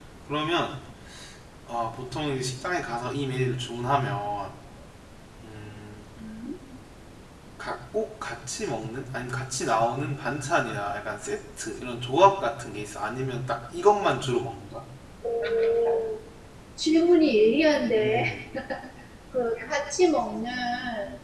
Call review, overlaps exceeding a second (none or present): none